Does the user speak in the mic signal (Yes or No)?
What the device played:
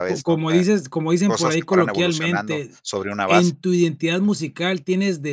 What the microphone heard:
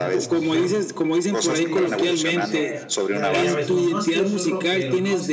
Yes